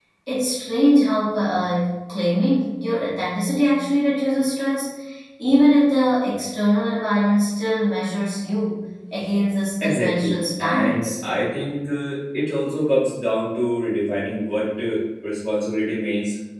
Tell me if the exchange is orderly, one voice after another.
No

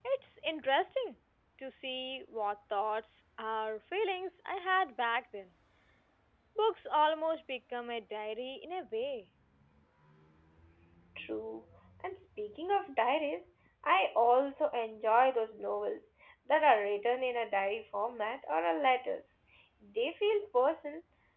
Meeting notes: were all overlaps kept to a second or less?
Yes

